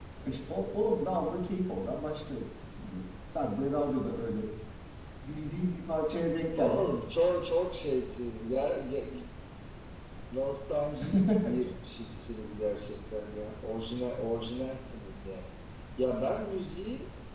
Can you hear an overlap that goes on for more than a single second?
No

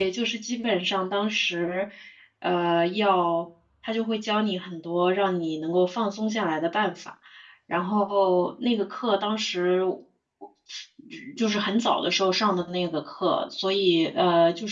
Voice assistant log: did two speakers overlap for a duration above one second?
No

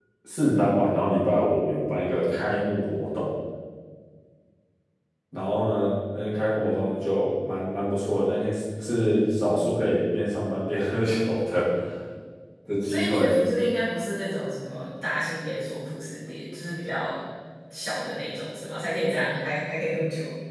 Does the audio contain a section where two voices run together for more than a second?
No

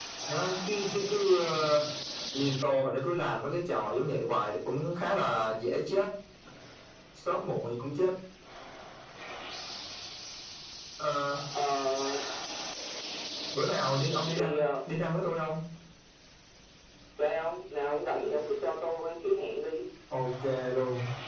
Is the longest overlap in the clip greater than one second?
No

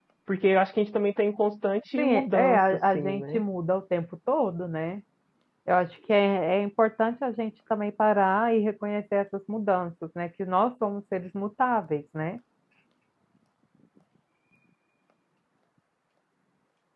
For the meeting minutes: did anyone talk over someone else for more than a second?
Yes, from 2.0 s

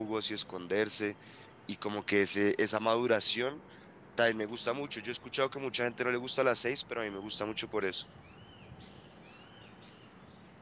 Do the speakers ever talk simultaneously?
No

